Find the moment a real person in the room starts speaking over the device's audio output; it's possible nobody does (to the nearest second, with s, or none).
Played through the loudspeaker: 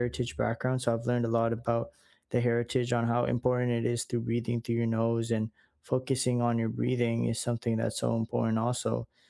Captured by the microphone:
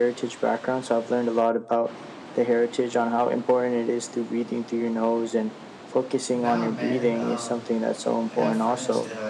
6 s